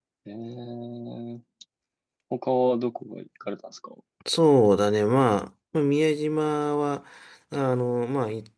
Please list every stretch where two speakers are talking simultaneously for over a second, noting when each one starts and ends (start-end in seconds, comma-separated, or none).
none